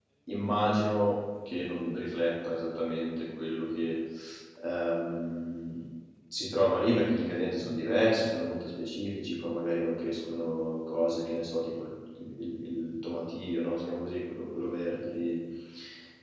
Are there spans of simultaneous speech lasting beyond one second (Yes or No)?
No